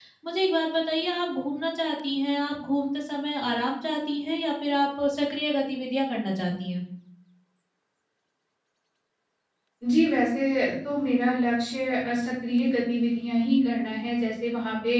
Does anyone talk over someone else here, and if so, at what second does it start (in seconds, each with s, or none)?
none